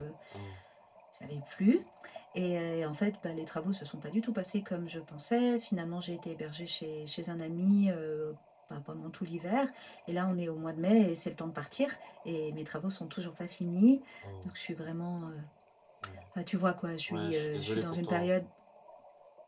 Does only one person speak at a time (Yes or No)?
No